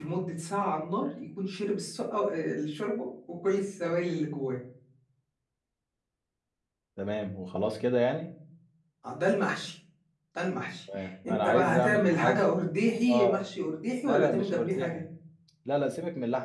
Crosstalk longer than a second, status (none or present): present